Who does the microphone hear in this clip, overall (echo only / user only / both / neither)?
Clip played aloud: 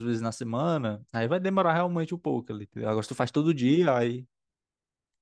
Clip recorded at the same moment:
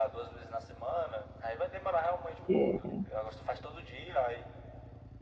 both